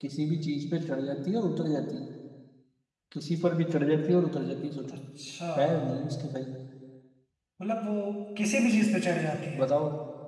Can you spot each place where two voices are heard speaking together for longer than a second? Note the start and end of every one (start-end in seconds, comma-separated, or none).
none